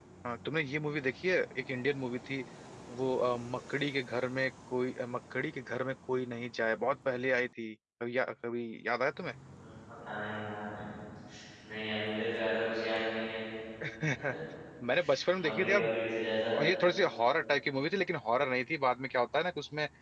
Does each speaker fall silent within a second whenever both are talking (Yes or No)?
Yes